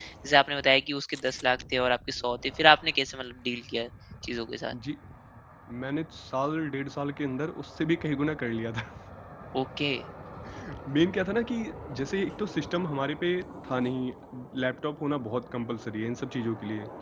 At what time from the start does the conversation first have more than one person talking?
none

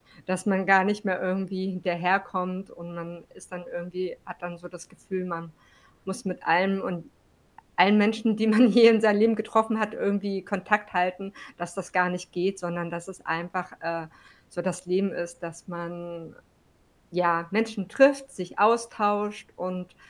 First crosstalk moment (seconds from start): none

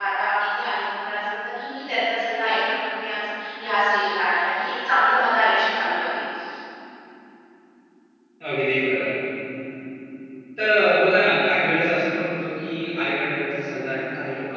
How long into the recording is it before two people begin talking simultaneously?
none

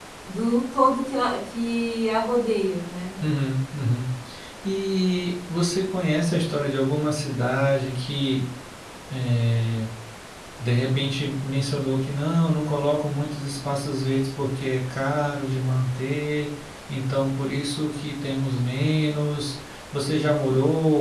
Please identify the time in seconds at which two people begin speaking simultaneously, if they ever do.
none

